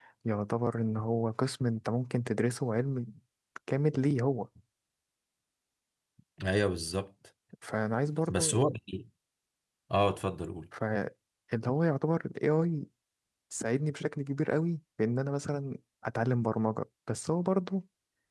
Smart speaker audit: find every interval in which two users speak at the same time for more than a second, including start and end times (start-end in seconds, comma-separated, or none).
none